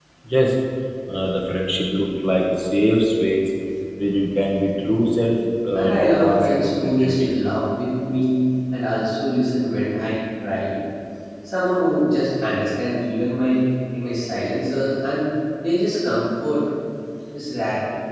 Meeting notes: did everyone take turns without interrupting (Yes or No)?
No